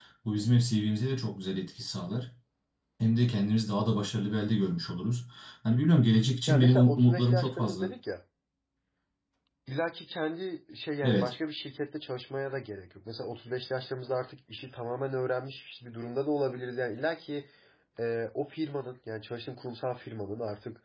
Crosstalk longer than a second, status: present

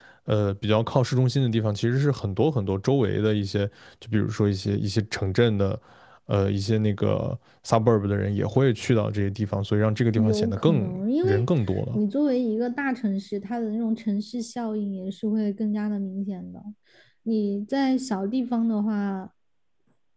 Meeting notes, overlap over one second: present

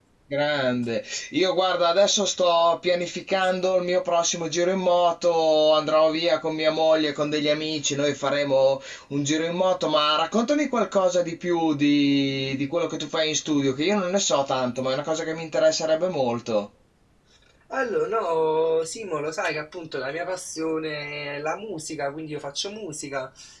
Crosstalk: none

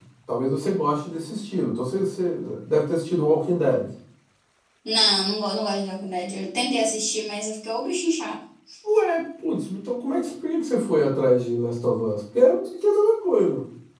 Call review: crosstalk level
none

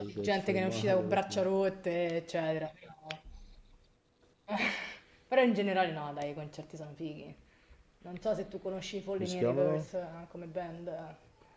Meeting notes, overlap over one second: present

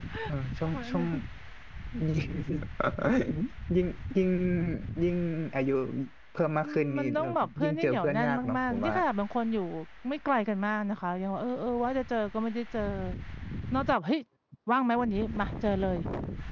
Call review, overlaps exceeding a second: present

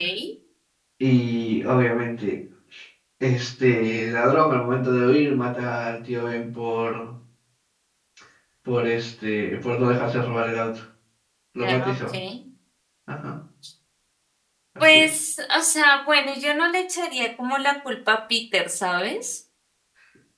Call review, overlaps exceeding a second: none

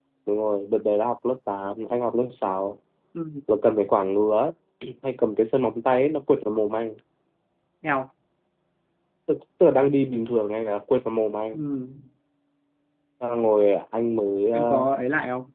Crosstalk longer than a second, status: none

